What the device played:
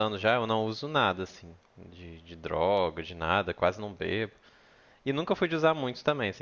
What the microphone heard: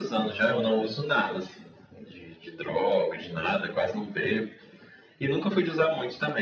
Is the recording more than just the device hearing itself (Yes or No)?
No